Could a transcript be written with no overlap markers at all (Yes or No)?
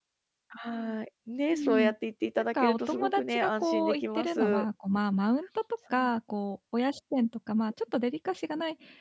No